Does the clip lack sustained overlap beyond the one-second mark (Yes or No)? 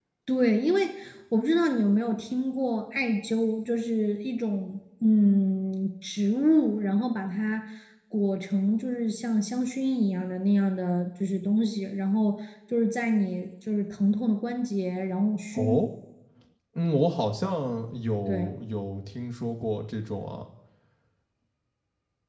Yes